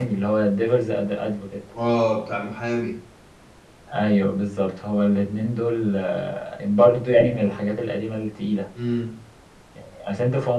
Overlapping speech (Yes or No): No